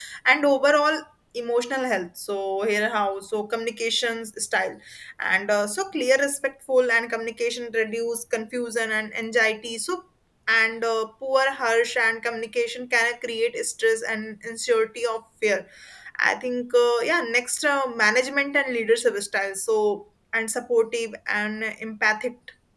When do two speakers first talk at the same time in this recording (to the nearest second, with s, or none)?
none